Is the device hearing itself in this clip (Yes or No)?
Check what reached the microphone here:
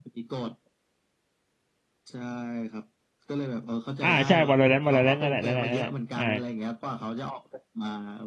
Yes